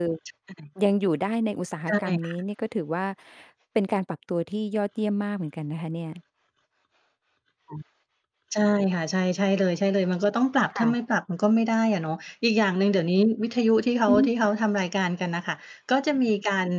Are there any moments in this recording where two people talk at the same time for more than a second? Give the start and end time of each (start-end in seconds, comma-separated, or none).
none